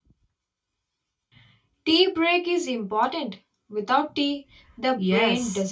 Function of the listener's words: taking over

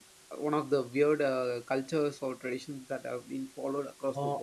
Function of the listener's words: taking over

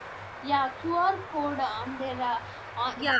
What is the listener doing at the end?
taking over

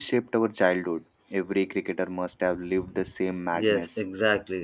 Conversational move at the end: taking over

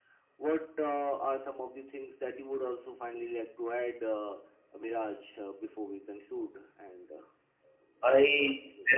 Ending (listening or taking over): taking over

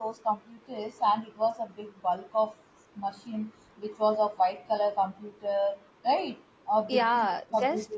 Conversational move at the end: taking over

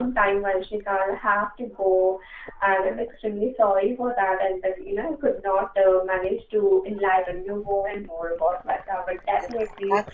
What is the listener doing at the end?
taking over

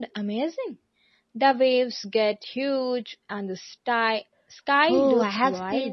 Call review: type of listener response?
taking over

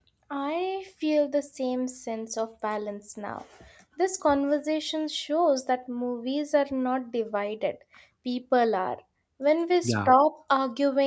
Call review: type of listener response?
listening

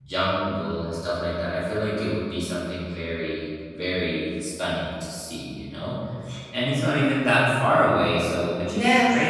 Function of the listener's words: taking over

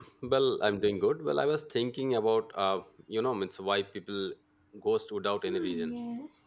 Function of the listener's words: taking over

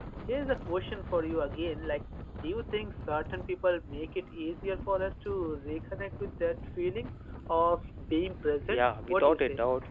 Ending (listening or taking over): taking over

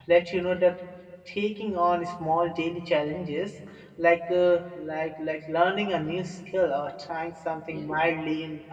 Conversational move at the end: listening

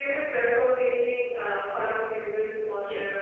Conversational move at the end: taking over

